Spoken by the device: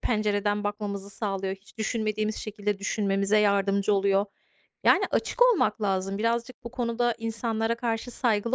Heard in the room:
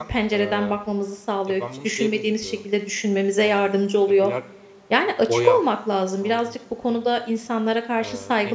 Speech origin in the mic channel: both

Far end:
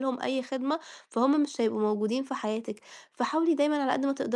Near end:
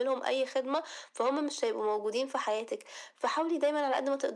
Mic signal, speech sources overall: echo only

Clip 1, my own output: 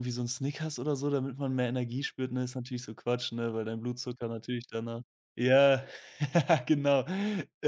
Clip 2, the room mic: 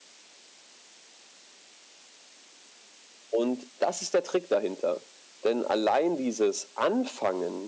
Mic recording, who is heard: user only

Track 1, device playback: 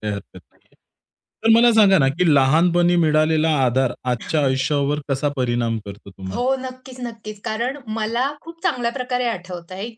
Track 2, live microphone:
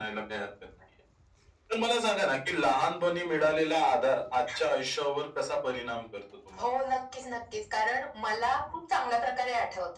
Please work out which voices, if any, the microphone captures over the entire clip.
echo only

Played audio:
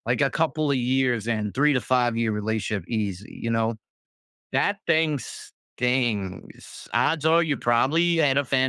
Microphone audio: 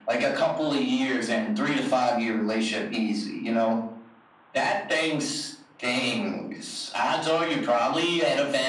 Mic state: echo only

